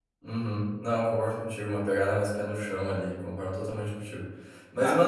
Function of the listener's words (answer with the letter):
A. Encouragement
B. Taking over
A